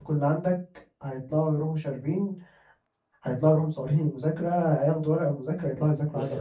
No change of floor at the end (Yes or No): No